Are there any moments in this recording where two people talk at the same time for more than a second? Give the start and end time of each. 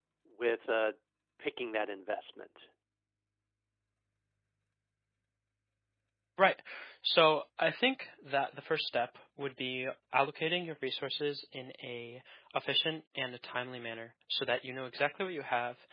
none

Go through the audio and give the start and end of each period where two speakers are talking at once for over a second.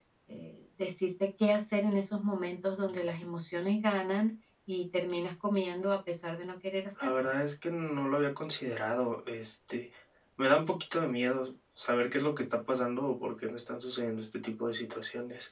none

